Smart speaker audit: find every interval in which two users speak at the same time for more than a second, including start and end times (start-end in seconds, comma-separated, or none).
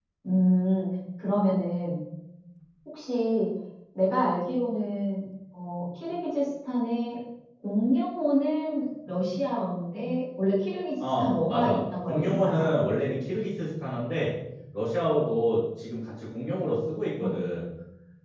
11.2-12.6